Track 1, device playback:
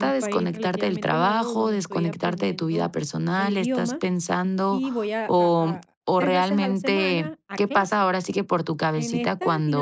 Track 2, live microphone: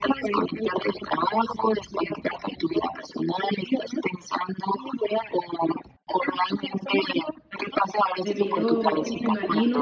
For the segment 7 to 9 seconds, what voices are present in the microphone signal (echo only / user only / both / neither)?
both